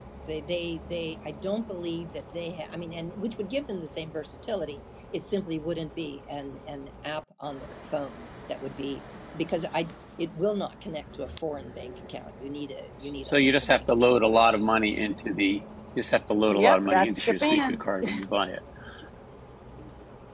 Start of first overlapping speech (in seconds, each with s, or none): 13.2 s